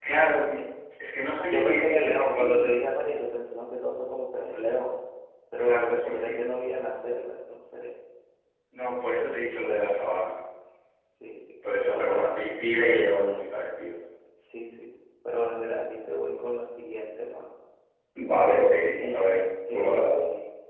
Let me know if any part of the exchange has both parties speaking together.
Yes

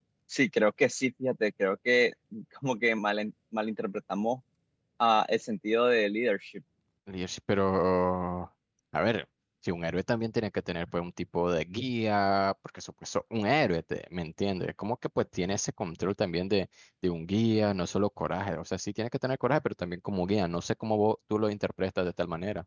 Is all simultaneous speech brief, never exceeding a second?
Yes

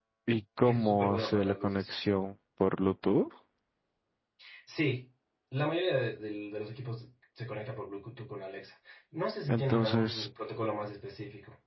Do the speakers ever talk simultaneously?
Yes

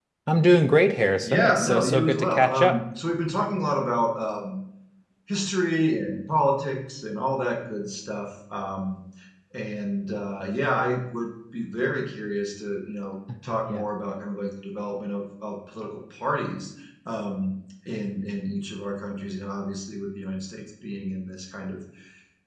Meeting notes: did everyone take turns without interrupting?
No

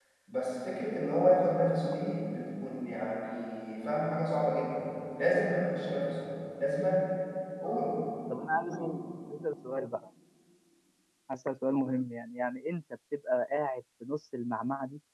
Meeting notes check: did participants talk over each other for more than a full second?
No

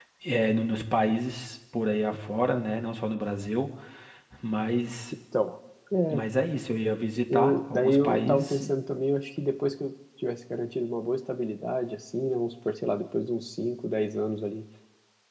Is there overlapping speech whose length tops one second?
Yes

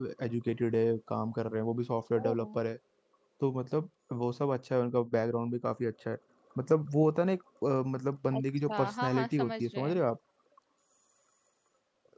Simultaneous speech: Yes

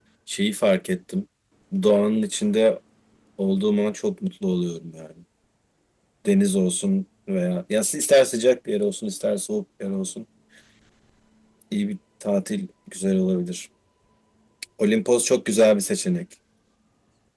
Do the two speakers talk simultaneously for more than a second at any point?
No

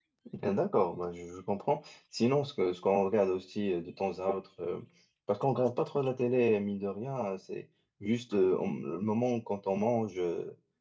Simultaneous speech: No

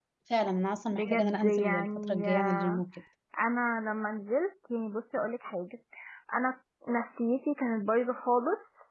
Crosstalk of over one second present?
Yes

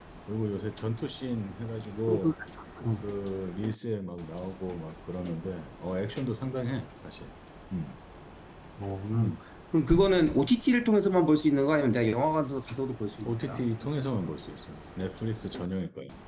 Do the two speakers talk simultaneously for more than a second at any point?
No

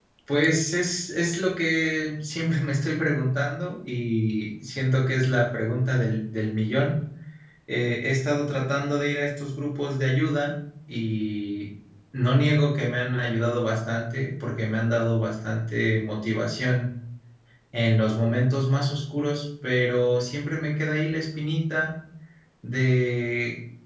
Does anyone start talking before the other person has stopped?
No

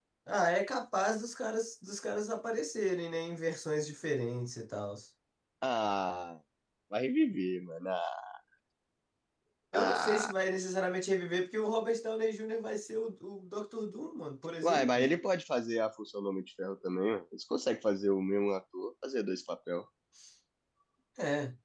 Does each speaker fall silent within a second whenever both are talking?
Yes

